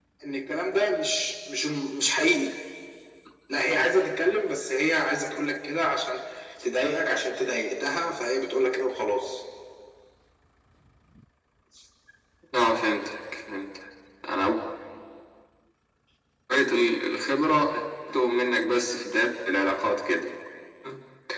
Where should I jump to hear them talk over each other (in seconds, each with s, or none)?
none